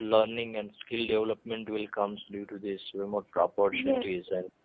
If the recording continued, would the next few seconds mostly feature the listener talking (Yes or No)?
No